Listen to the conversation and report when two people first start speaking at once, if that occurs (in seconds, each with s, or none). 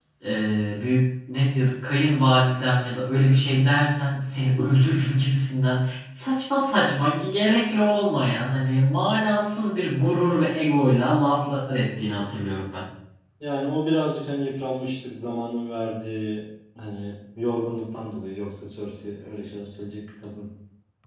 none